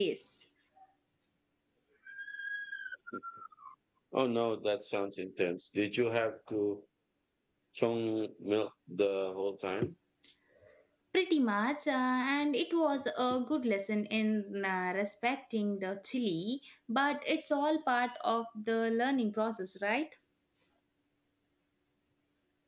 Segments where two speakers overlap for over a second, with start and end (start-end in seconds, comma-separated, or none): none